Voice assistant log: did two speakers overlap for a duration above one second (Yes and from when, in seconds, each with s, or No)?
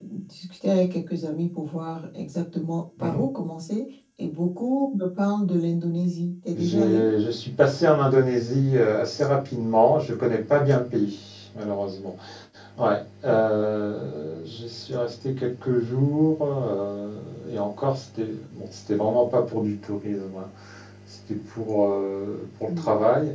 No